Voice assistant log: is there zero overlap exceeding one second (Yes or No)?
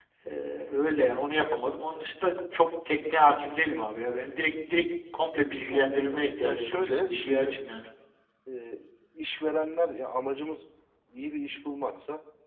No